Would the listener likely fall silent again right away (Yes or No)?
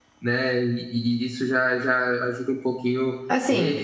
No